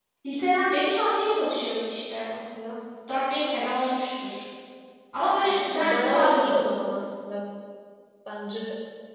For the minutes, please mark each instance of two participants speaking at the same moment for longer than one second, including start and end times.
5.4-6.7

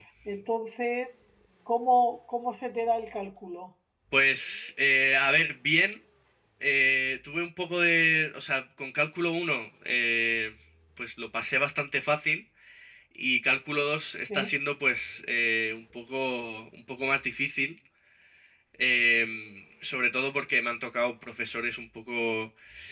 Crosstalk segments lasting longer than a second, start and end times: none

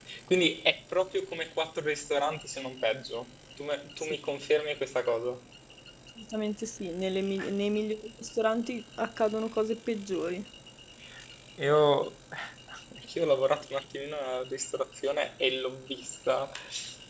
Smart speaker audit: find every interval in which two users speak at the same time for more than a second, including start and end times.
none

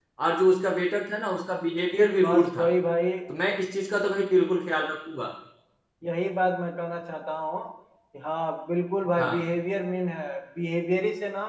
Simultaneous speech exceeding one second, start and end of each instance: none

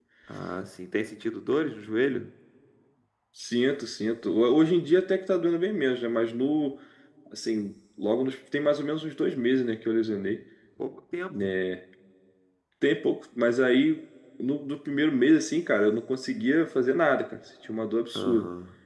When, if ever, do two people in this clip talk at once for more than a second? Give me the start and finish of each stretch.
none

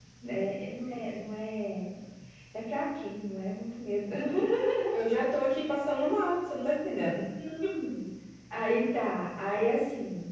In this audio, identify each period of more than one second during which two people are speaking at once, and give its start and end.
none

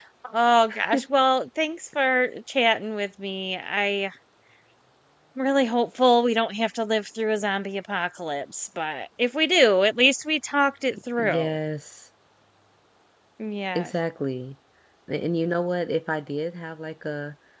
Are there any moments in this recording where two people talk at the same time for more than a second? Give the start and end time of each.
none

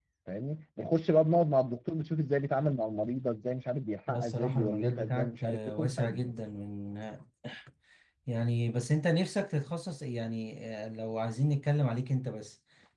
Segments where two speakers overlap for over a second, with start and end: 4.1-6.3

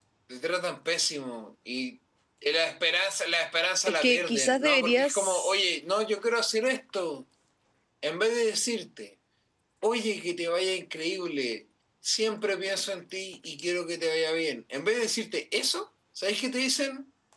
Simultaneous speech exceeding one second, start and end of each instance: 3.9-5.5

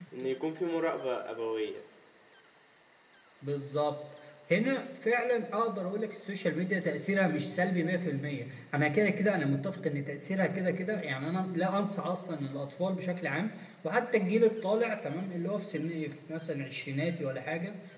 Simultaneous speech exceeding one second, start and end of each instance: none

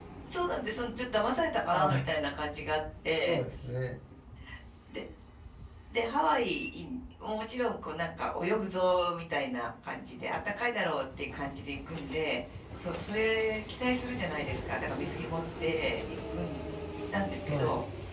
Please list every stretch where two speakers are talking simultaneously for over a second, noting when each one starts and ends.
none

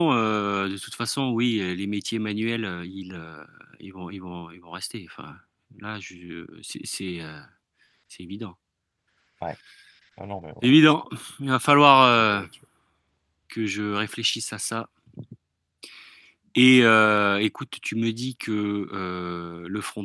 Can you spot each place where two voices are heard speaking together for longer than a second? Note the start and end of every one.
none

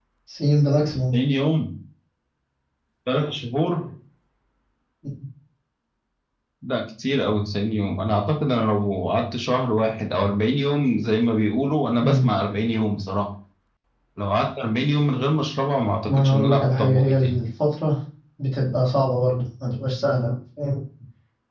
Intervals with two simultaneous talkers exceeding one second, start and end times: 16.1-17.4

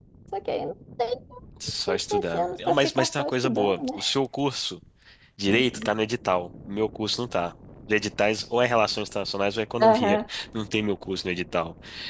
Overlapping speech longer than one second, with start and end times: 1.9-4.0

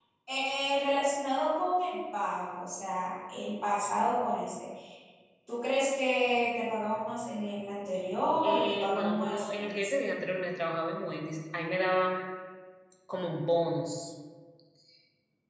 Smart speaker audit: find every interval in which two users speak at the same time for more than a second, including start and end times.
8.4-10.1

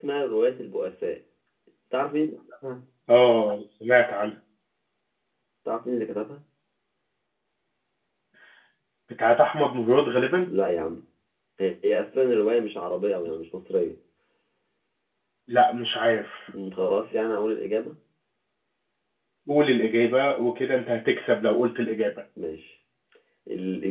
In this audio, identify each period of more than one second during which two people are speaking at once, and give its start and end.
none

